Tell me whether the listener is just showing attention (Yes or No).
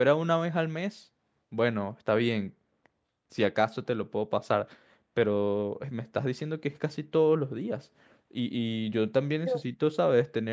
Yes